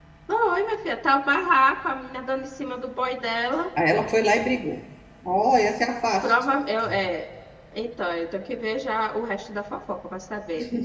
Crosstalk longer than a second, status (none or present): none